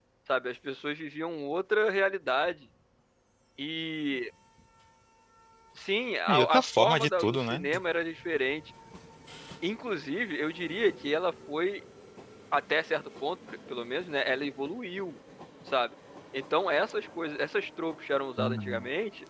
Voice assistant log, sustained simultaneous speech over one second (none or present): present